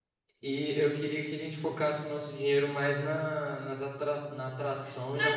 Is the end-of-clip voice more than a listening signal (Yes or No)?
Yes